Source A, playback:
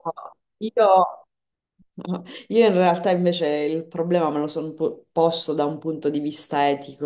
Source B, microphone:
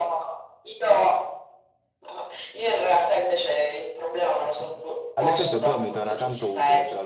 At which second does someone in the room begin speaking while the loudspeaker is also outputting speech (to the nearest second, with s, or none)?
4 s